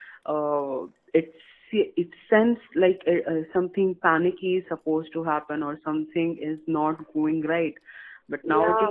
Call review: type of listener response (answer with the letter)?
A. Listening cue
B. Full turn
A